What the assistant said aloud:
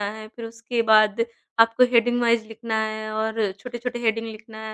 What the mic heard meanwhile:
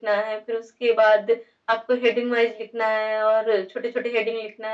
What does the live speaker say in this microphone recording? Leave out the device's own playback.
none

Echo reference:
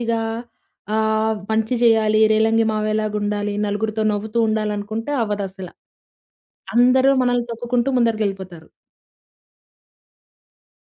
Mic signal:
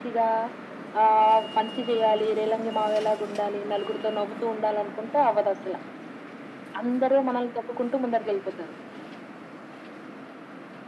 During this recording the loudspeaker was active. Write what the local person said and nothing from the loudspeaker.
none

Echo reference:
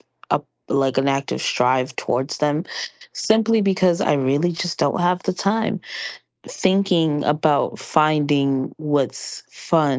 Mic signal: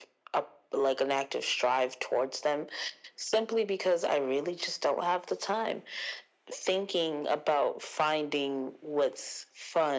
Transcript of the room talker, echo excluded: none

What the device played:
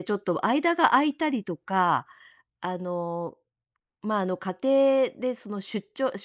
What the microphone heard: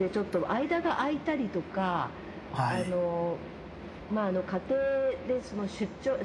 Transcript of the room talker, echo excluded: はい。

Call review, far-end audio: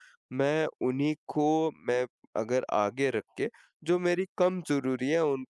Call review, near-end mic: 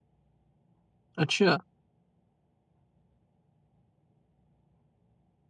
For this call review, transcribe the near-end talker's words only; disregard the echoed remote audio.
अच्छा,

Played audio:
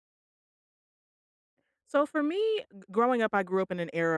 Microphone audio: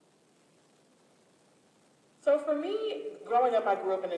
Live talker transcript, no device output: none

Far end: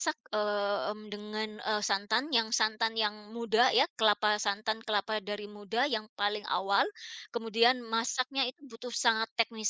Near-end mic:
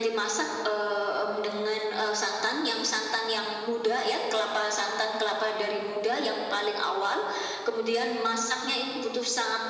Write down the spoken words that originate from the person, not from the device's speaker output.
none

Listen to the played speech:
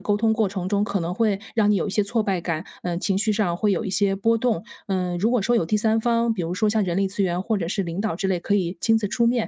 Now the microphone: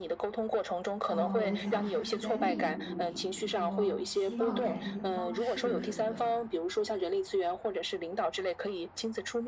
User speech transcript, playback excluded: 呃，我在想是不是在那一步里，比如说希望改进的方式什么的，

